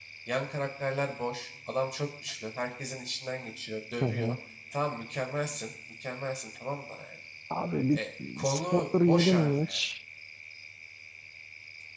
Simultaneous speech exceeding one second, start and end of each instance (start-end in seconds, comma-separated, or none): 8.4-9.7